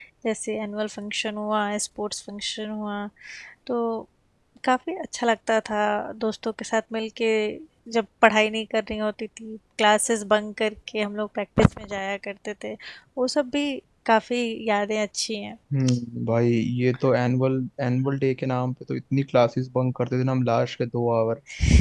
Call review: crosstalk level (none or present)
none